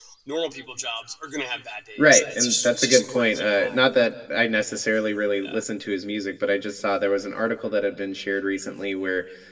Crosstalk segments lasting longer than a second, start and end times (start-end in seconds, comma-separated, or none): 2.0-3.8